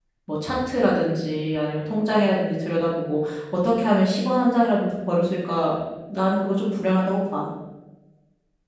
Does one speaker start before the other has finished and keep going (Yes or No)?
No